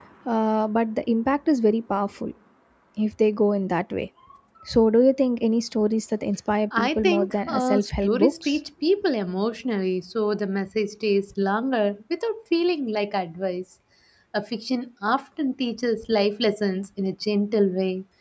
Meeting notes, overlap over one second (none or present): present